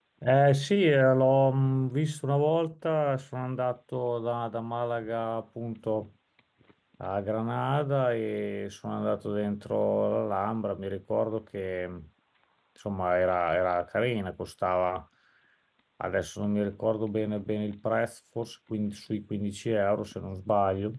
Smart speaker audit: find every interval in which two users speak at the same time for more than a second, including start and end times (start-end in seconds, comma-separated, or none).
none